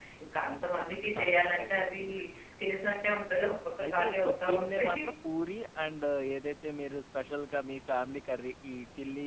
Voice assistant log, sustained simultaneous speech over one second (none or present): present